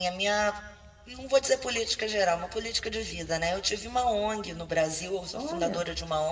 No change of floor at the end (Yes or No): Yes